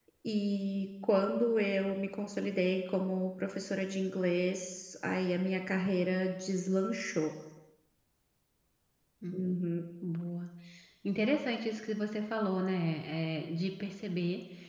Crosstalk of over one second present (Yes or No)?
No